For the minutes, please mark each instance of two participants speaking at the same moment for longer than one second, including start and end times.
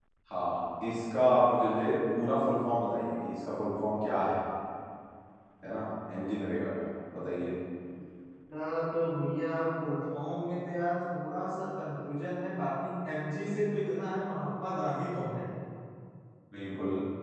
none

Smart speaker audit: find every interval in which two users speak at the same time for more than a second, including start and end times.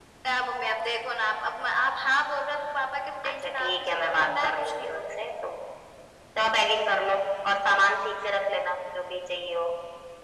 3.3-5.3

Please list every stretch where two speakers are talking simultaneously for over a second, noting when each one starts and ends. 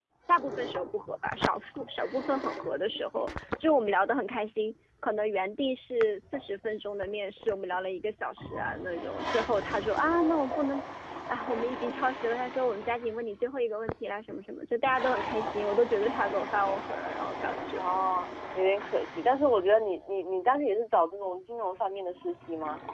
none

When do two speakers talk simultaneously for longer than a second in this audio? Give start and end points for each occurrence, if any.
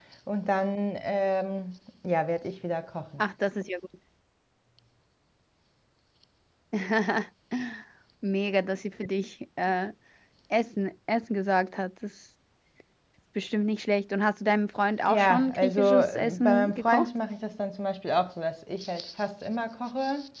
15.1-17.1

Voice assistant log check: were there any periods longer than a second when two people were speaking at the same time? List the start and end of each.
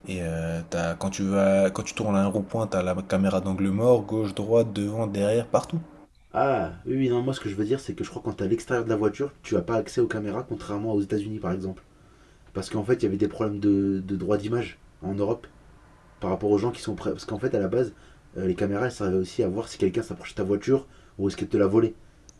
none

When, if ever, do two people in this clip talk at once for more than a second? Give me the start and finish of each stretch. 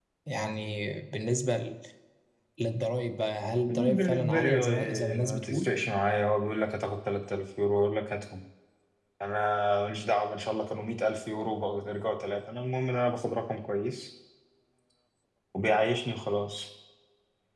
3.7-5.7

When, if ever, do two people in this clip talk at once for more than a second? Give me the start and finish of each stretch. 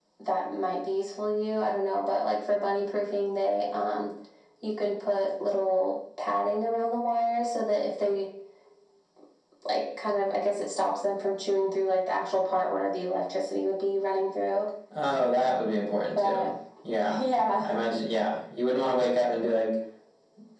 none

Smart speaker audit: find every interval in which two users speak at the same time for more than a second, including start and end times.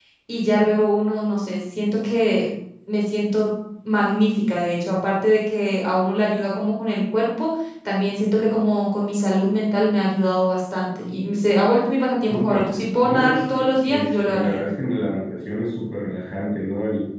13.0-14.6

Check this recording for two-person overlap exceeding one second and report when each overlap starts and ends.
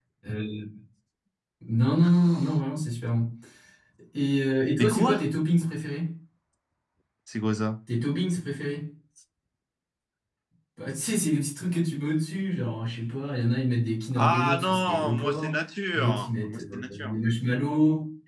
14.2-15.6, 15.9-17.1

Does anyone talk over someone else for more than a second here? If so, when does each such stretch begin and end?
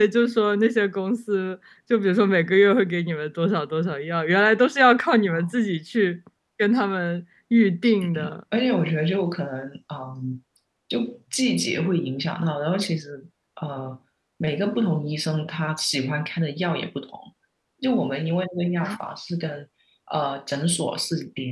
none

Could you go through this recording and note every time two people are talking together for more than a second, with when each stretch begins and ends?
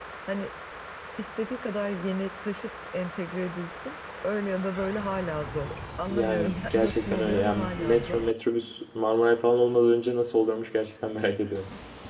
6.1-8.2

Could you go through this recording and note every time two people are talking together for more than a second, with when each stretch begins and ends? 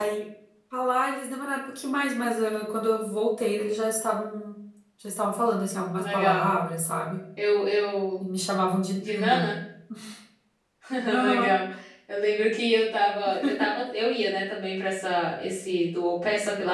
none

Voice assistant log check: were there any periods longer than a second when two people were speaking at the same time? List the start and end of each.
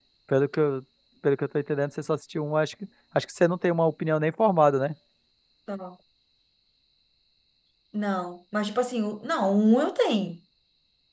none

